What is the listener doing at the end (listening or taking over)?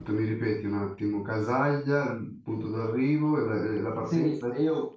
taking over